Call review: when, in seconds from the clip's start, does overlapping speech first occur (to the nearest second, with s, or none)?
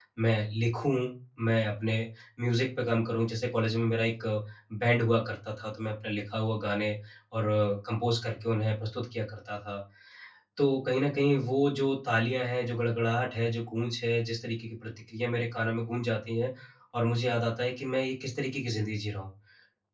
none